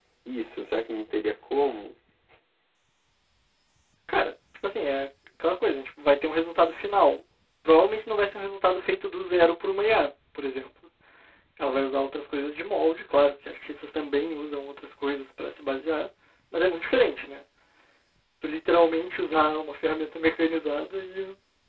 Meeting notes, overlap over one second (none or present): none